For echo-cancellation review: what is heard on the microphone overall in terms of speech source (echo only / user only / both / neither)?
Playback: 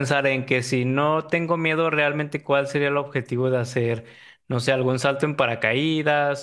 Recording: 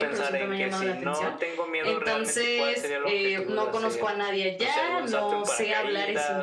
both